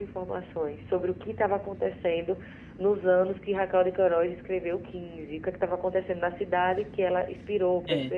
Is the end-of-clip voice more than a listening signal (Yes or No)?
No